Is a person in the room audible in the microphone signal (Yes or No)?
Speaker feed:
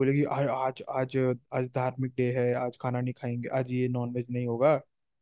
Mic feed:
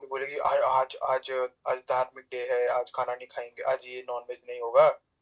No